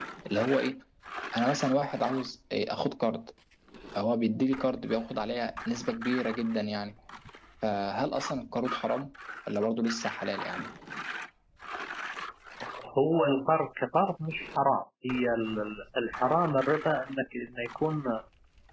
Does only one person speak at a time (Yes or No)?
Yes